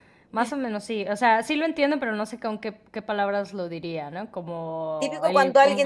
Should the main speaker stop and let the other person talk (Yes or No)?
Yes